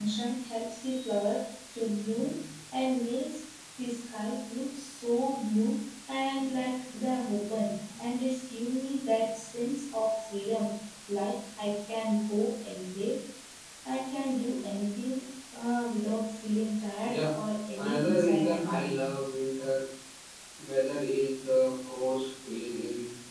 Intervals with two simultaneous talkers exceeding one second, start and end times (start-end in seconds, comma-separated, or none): 17.8-19.0